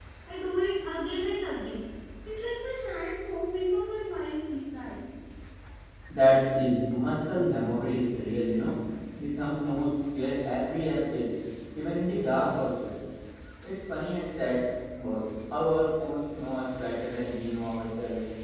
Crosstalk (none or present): none